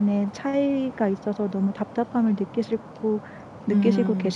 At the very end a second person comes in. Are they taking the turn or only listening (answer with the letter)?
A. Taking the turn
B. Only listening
A